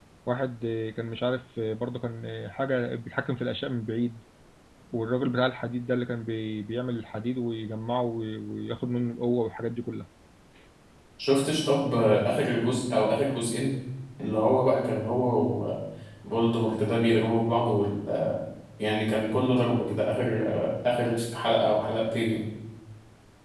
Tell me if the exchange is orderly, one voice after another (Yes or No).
Yes